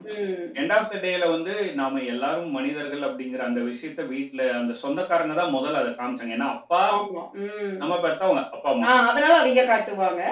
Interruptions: none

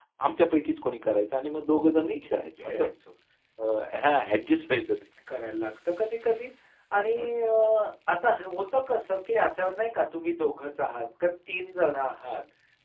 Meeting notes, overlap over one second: none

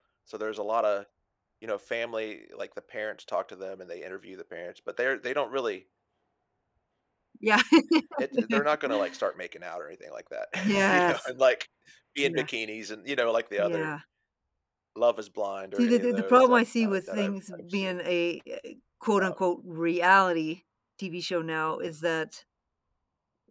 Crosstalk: present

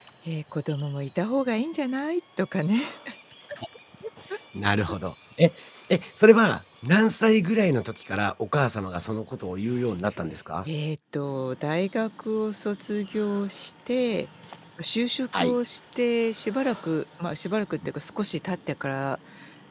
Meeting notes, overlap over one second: none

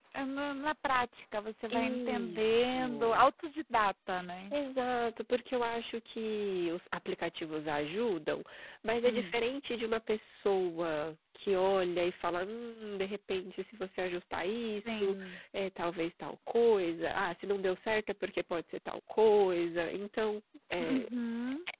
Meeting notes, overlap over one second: present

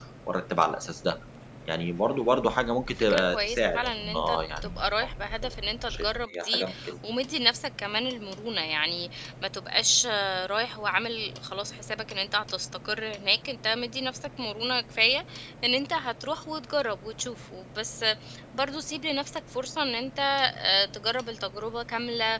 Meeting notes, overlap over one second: present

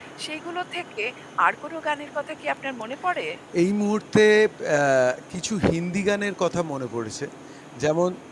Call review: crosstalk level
none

